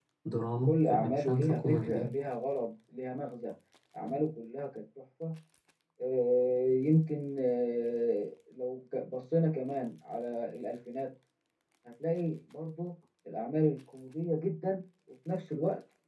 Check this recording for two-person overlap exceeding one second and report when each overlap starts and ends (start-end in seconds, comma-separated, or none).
0.7-2.1